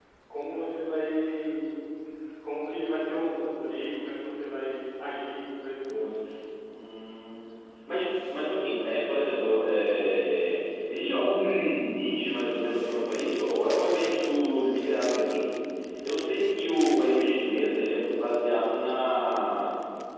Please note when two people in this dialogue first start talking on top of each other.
none

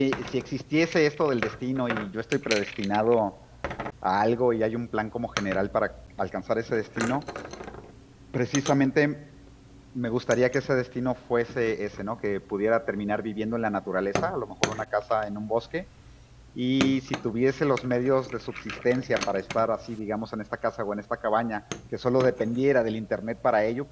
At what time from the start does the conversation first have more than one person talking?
none

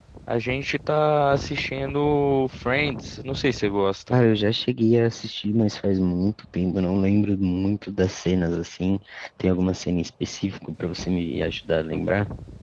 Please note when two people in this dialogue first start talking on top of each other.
none

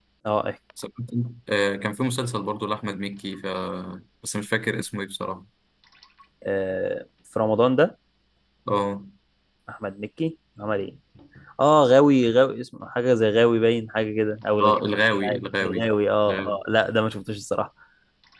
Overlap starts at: 14.6 s

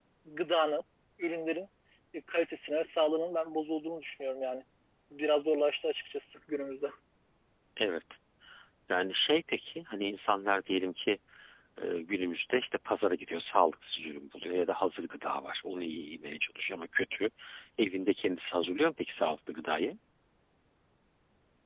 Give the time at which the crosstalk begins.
none

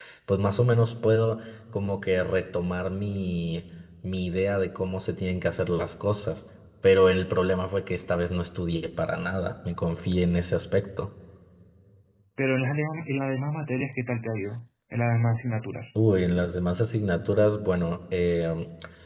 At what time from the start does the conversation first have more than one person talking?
none

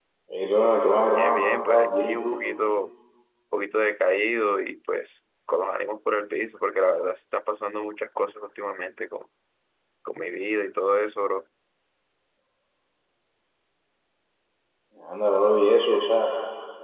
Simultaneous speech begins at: 1.2 s

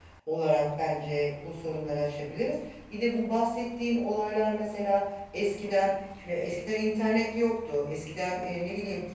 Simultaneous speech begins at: none

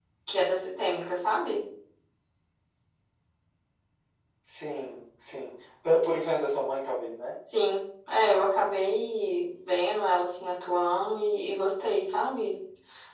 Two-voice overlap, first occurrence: none

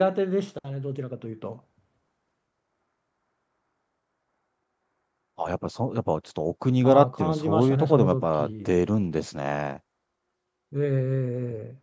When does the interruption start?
6.8 s

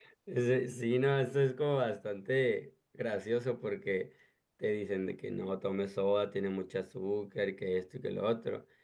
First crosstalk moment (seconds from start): none

